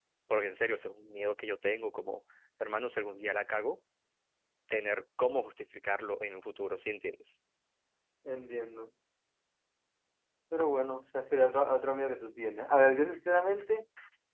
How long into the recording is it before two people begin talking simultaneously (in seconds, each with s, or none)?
none